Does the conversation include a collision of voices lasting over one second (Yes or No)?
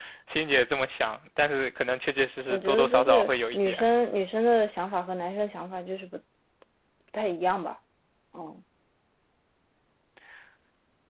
Yes